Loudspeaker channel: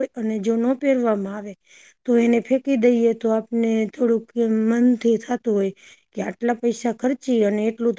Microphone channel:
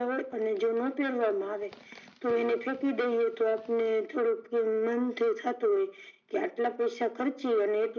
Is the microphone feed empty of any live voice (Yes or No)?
Yes